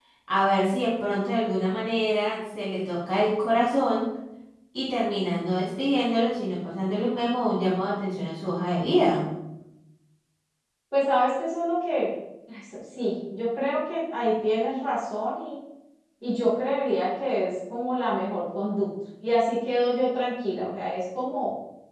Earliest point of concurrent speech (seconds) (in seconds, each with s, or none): none